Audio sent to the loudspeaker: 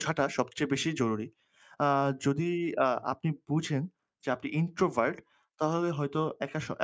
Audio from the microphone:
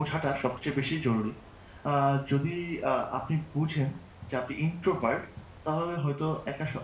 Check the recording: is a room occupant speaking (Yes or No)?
No